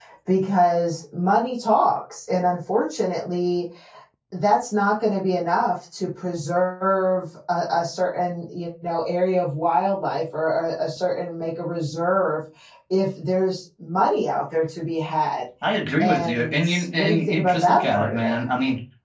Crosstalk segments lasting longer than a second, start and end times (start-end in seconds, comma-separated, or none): 16.0-18.4